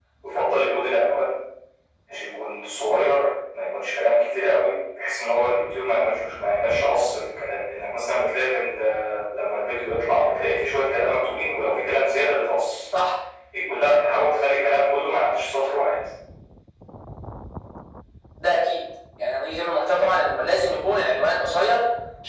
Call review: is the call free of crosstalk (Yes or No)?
Yes